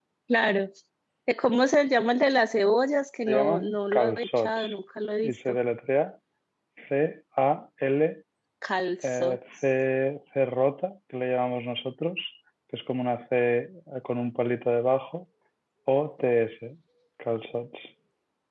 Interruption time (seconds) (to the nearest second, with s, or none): 3 s